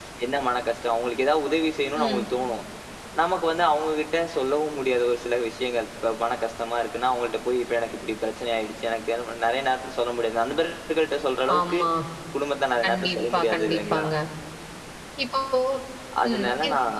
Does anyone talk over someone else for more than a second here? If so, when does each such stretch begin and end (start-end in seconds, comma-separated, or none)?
12.8-14.1